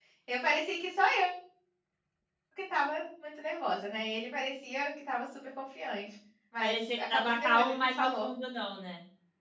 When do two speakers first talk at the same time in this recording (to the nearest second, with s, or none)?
7 s